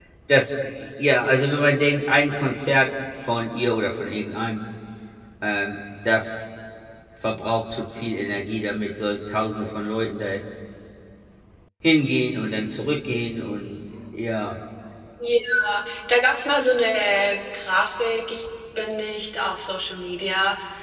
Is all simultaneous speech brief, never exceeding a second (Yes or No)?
Yes